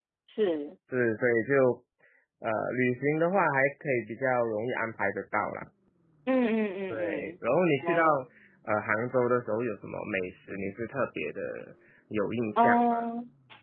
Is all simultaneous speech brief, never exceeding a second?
Yes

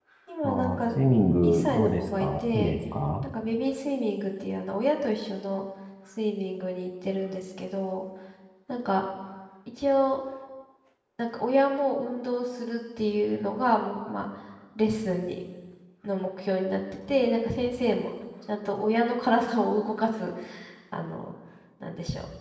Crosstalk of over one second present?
Yes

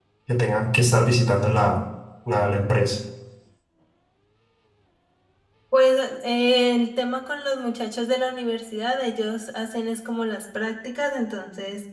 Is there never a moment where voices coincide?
Yes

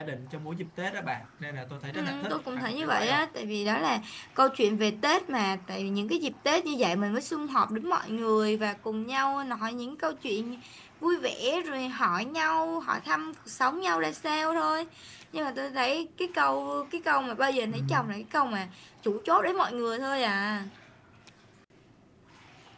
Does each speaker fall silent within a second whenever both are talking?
No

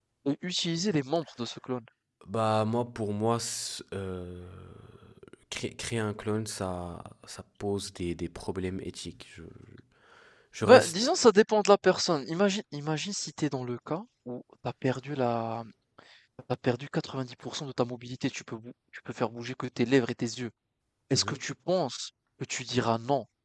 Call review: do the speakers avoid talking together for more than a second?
Yes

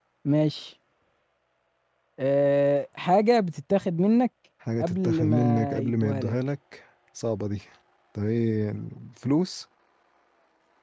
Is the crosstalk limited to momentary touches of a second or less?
No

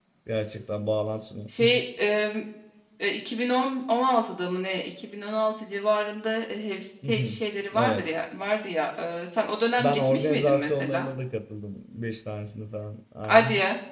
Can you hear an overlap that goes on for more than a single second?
Yes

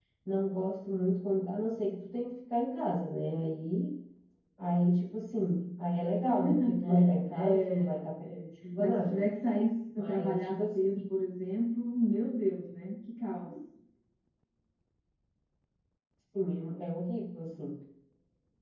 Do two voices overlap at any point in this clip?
Yes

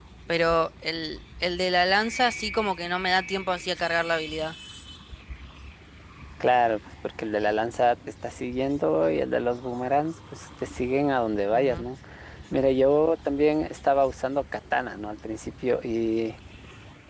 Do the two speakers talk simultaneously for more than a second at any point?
No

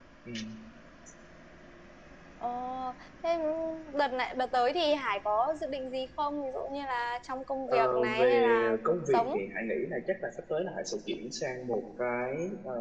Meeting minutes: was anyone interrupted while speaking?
Yes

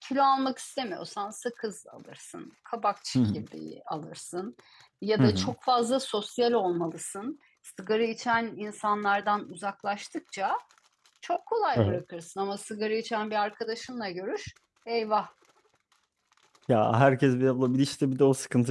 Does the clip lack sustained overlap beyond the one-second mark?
Yes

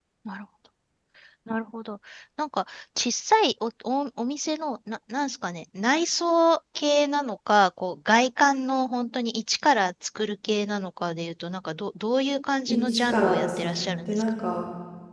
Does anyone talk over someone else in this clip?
Yes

